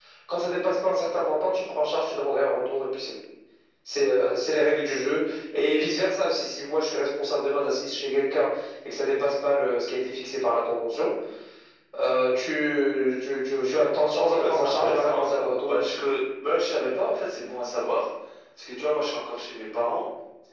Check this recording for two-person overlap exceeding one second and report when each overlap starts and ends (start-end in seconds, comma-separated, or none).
14.3-16.0